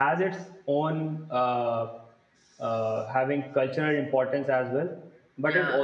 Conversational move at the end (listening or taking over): listening